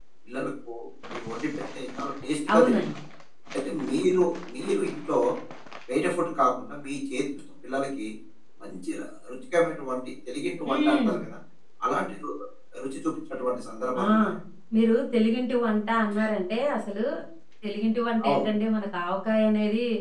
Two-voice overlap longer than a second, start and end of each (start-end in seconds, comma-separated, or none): none